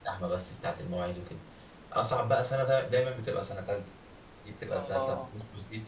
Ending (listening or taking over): listening